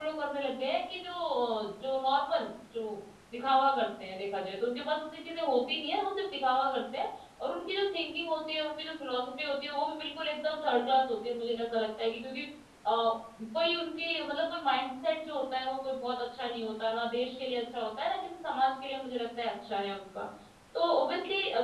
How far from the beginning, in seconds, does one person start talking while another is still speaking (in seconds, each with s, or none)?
none